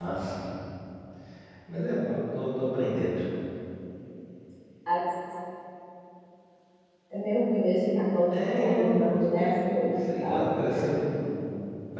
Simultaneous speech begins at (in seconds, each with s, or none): 8.3 s